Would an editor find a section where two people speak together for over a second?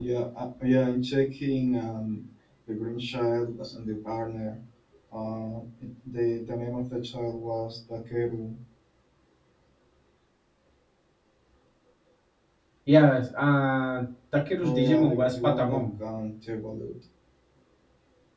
Yes, from 14.6 s

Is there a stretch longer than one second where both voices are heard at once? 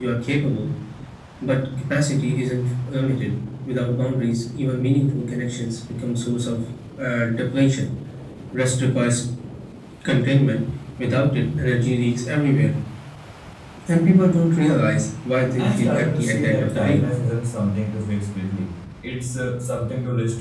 Yes, from 15.6 s

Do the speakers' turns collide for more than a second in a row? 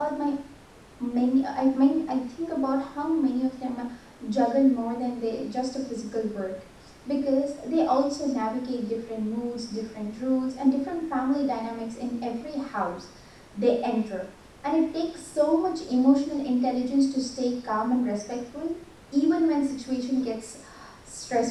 No

